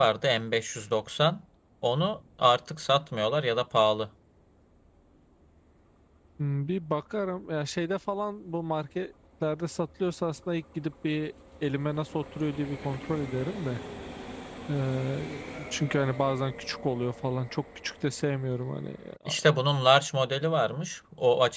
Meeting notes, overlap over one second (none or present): none